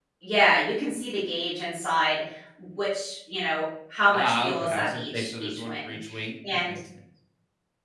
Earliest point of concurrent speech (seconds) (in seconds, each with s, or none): 4.1 s